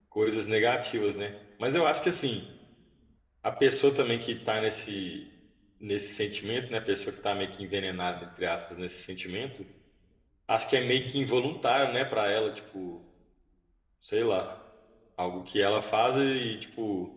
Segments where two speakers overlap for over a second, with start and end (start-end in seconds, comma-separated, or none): none